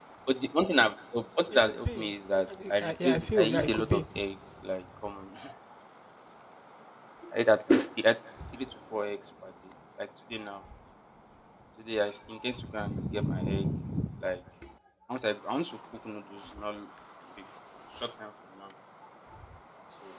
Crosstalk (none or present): present